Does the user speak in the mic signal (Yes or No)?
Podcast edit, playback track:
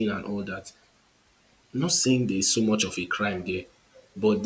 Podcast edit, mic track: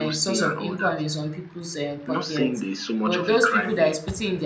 Yes